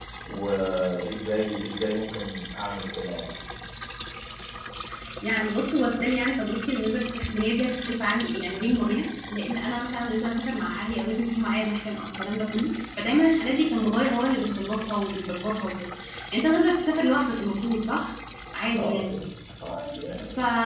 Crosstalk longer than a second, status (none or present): none